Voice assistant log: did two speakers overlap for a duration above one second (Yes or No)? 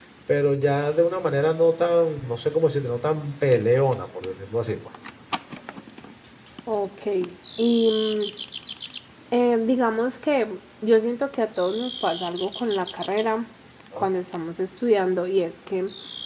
No